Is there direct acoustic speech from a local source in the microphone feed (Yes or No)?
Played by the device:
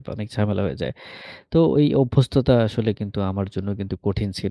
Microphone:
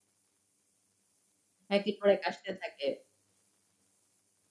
Yes